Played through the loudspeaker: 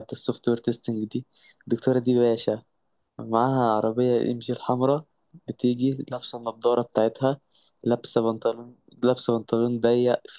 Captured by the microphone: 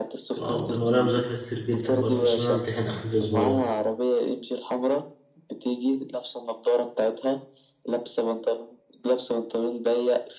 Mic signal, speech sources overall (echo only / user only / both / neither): both